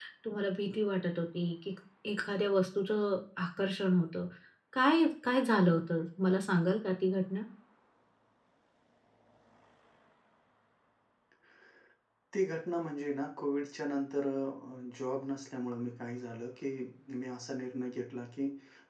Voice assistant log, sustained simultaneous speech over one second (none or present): none